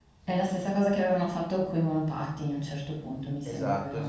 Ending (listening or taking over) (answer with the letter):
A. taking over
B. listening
A